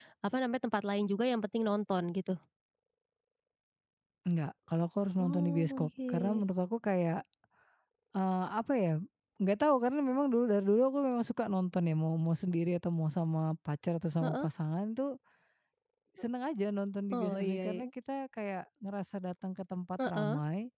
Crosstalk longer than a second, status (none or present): present